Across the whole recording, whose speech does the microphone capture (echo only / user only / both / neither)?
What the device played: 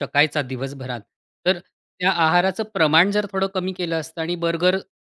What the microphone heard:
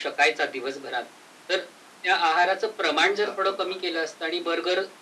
both